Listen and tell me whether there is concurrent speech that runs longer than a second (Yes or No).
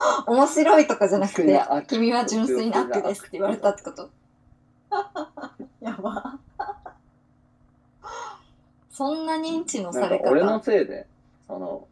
Yes